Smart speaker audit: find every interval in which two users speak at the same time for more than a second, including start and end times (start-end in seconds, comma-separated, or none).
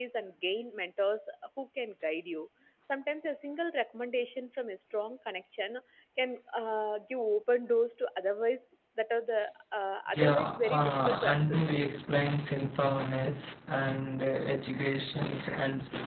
10.1-11.7